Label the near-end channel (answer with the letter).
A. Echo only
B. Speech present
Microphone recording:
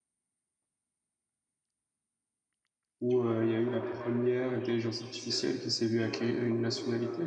B